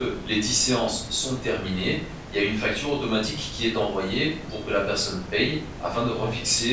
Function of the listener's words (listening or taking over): taking over